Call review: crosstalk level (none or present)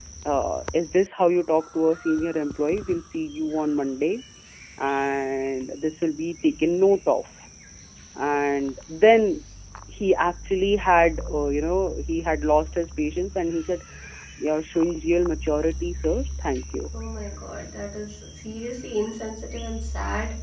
none